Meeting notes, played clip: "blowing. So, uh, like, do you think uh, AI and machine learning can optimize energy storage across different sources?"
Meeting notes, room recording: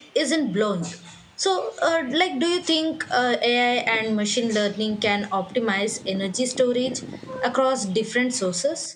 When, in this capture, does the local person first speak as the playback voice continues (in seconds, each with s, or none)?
none